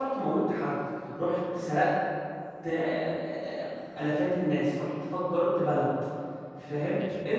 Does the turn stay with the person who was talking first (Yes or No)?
Yes